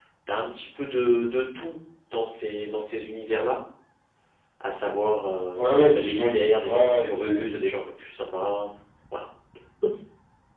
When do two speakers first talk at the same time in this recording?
5.5 s

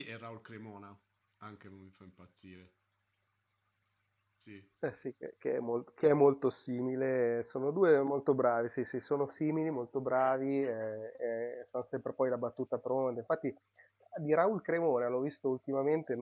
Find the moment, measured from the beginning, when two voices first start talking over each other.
none

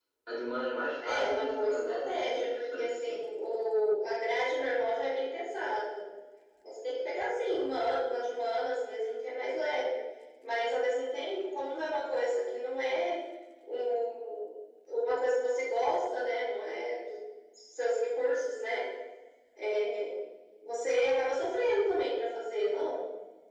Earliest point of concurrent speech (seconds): 1.0 s

